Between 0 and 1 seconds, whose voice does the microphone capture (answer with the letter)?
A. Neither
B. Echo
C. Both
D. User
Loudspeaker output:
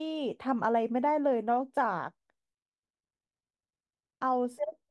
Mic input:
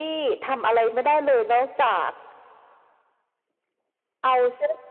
B